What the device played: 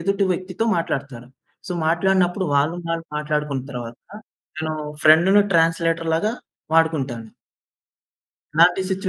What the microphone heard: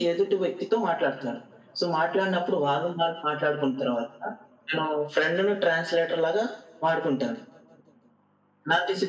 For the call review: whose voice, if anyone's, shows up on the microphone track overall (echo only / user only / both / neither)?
echo only